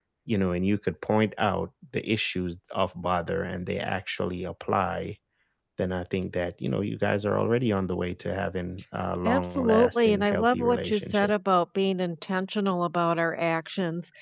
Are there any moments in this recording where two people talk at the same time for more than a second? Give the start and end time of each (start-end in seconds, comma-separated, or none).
9.2-11.3